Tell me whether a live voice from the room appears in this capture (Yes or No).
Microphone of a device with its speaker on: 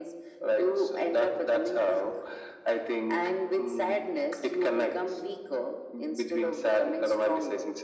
No